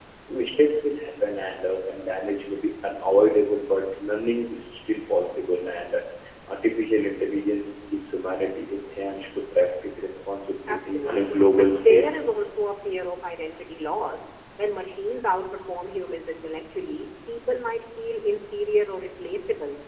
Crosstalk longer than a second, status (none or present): present